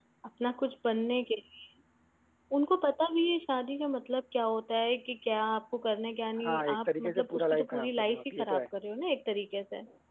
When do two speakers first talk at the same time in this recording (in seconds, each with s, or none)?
6.4 s